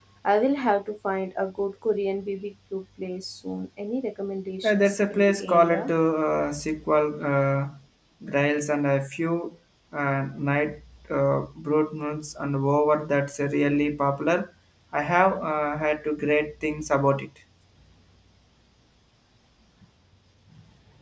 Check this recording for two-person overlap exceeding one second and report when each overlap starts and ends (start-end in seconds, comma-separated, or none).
4.6-5.9